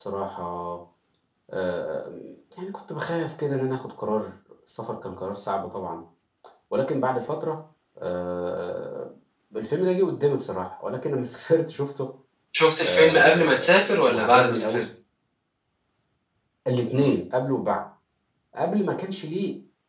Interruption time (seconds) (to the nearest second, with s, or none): 13 s